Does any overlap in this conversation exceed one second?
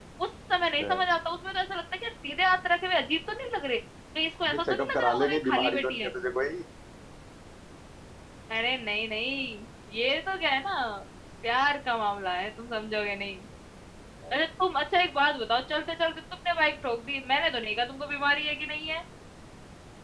Yes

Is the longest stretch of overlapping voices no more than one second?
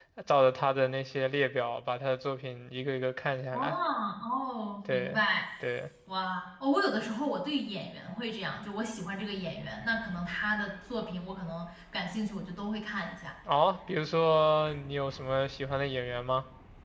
Yes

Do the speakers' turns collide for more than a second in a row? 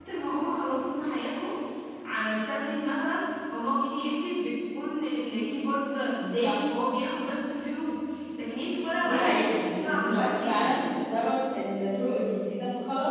Yes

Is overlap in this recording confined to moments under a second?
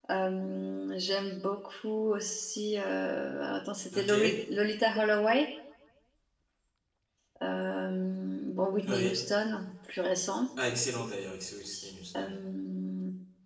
Yes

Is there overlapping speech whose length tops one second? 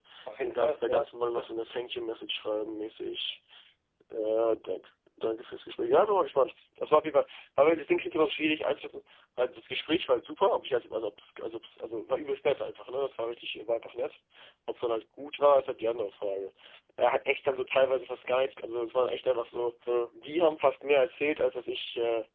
Yes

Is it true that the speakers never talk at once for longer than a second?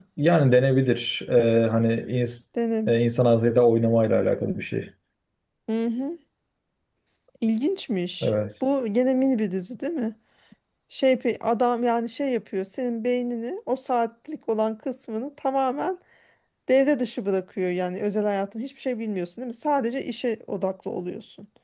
Yes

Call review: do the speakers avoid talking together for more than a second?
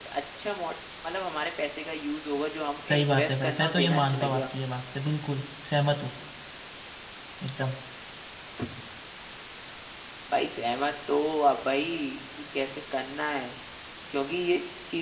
No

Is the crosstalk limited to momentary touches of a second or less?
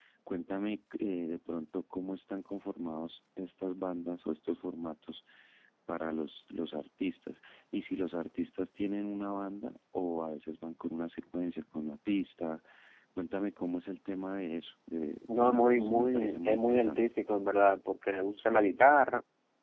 No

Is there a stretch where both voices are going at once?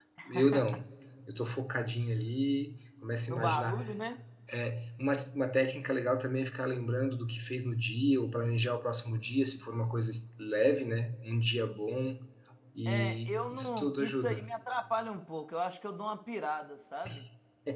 Yes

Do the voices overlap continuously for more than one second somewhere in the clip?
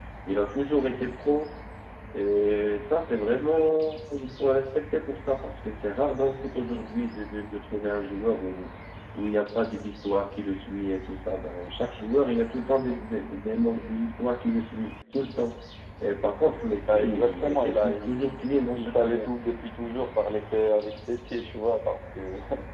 Yes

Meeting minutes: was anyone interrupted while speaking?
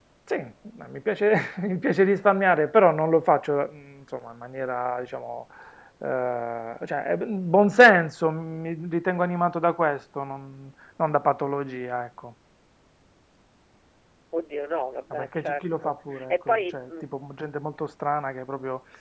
Yes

